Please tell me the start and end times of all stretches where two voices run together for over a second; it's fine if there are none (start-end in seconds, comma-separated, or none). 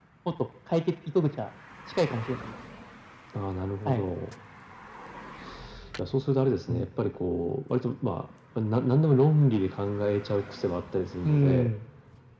none